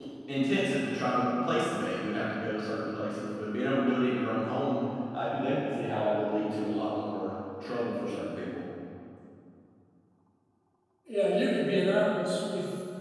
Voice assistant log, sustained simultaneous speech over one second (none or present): none